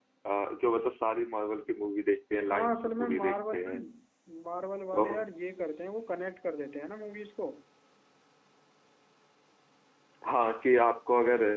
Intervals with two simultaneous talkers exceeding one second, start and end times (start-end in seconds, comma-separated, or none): 2.5-3.8